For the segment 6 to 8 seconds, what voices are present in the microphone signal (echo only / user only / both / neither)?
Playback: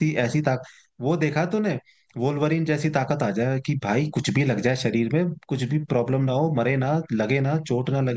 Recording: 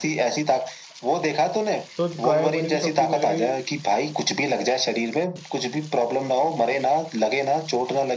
echo only